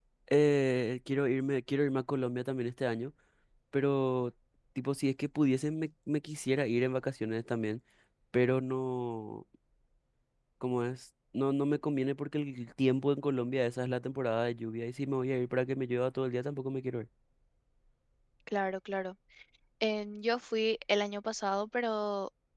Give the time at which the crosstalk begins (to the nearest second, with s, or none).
none